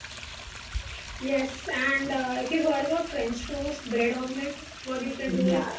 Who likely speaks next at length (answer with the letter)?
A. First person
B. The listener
A